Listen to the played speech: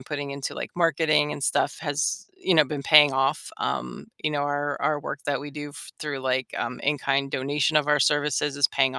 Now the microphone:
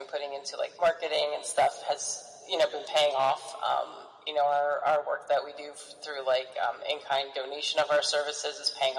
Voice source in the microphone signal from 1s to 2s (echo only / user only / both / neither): echo only